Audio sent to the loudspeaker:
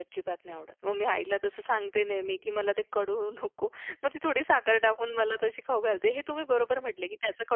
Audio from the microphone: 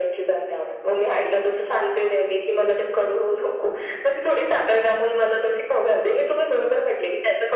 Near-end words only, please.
none

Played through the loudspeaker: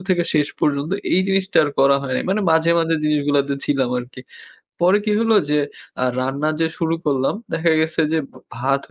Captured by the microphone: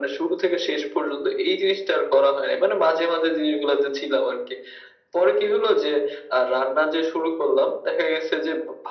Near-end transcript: none

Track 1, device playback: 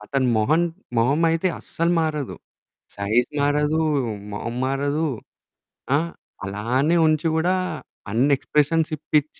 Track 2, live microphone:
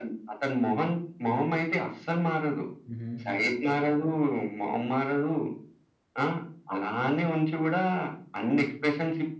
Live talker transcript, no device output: హుహు.

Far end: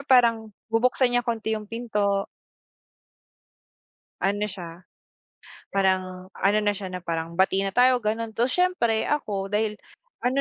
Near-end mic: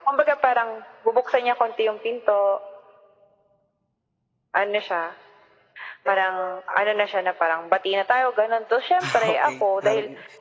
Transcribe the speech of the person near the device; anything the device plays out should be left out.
Ah, okey. Parang,

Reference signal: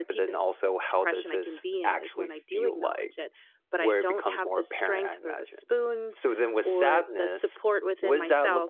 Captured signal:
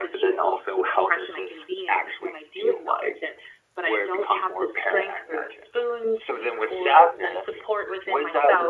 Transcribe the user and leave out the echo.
none

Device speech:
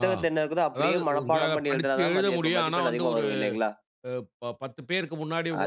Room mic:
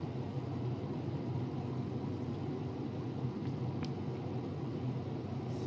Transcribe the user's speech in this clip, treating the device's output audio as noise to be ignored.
none

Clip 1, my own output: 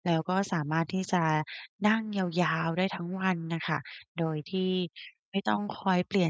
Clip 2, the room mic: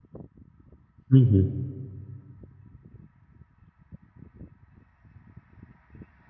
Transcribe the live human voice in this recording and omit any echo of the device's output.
อือฮึ

